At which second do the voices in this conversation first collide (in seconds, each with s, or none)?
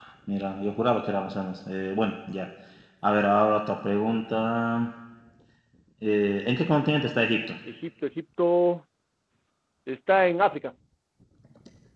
none